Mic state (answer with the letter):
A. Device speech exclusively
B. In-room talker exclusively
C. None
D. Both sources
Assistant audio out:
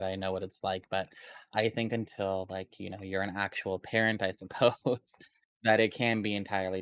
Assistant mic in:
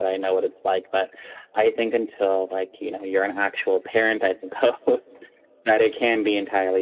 A